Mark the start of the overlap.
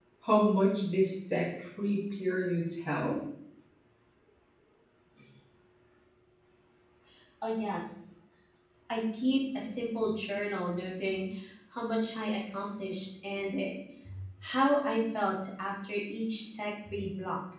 none

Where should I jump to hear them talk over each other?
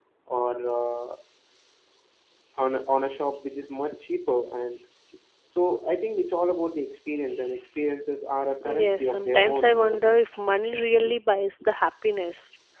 8.5 s

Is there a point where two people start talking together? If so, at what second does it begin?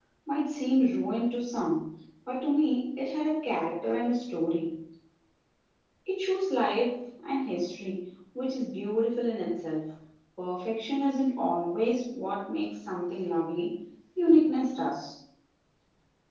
none

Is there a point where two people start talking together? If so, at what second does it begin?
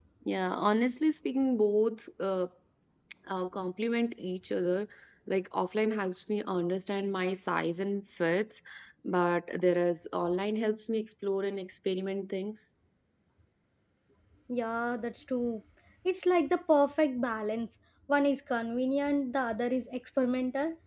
none

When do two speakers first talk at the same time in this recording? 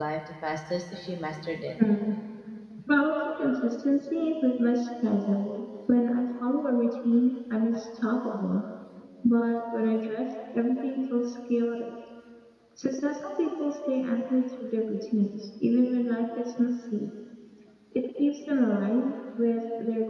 none

